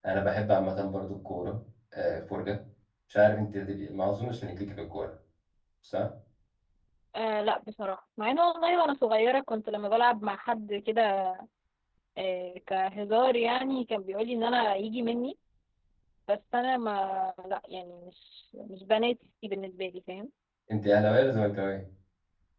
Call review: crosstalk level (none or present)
none